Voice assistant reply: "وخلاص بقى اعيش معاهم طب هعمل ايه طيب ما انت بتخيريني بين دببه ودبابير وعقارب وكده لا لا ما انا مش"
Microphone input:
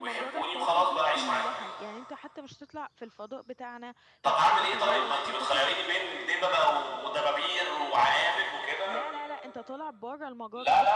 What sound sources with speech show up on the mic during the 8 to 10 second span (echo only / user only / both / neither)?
both